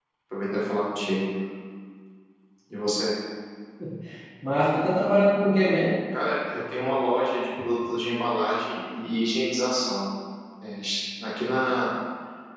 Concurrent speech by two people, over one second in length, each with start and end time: none

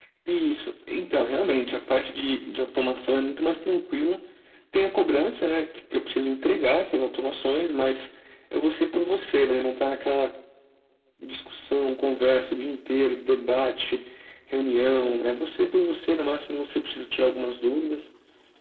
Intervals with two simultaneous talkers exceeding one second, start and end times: none

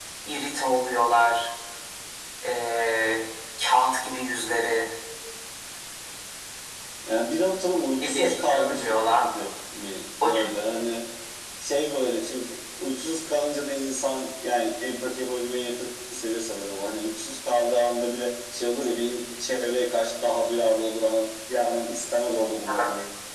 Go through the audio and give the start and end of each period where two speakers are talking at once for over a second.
8.0-9.2

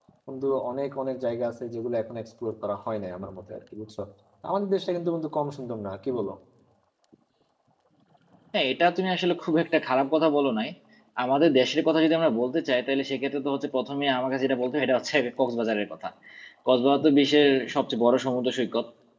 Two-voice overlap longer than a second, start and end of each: none

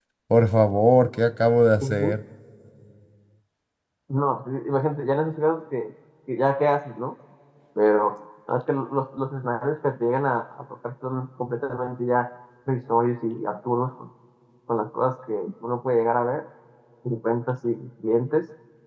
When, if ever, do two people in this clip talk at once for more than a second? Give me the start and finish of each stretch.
none

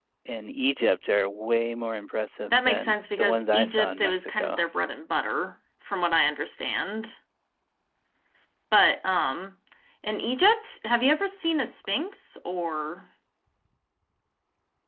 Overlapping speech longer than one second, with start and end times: 2.5-4.6

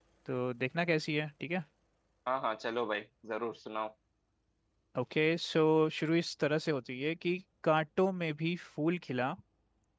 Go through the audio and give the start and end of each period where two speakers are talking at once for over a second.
none

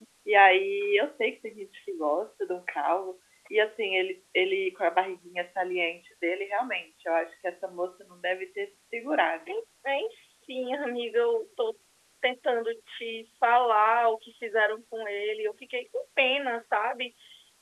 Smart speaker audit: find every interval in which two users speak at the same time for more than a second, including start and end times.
none

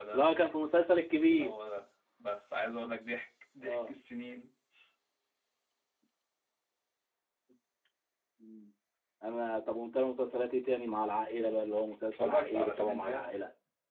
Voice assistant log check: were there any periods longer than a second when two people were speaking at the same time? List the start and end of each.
11.8-13.4

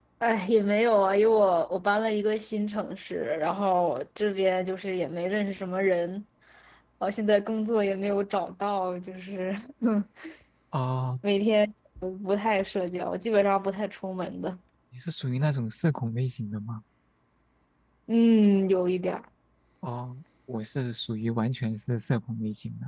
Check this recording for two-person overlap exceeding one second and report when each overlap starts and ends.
none

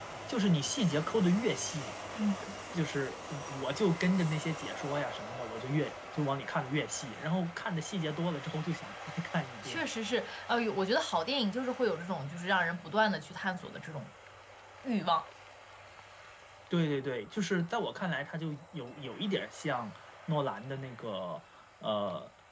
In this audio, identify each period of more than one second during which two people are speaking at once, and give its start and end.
none

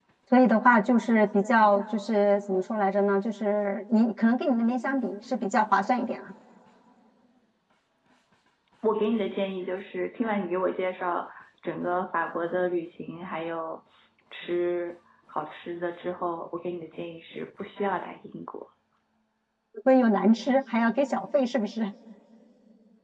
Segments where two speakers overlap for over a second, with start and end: none

